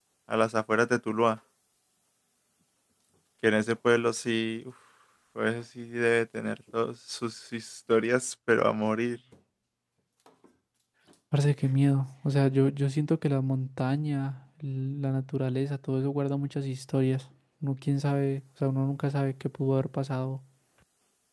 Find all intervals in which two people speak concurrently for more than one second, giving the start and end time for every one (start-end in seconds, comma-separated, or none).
none